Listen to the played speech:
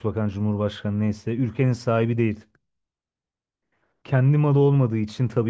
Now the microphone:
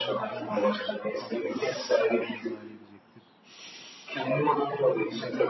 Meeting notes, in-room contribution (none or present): present